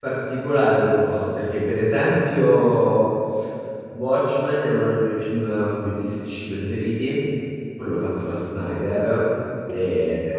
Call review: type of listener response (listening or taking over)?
listening